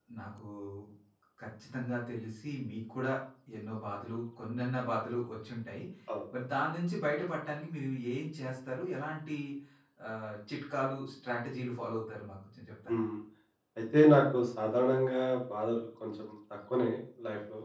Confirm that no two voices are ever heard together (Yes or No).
Yes